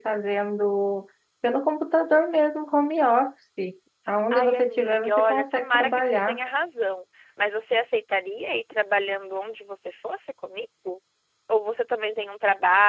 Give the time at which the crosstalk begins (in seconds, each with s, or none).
4.3 s